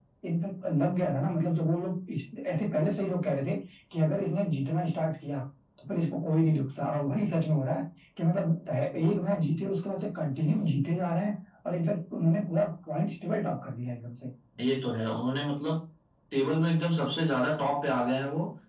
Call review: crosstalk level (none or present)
none